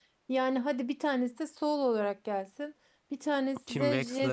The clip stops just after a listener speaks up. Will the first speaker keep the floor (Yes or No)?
Yes